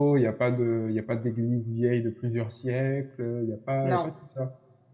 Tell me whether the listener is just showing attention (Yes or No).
Yes